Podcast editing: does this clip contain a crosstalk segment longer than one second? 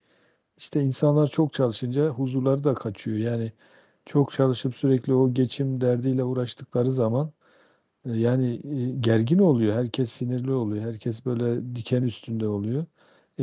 No

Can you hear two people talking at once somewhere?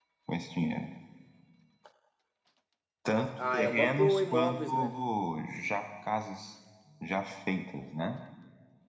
Yes, from 3.5 s

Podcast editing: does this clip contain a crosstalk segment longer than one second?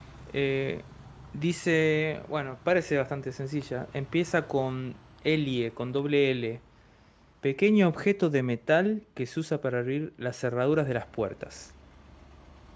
No

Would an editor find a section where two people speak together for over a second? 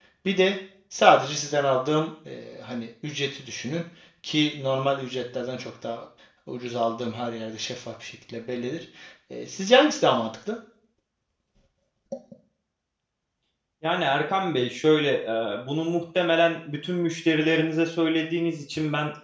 No

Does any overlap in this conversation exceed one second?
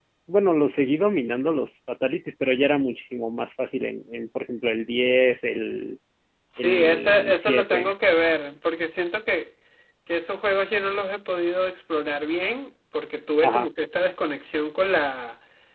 Yes, from 6.6 s

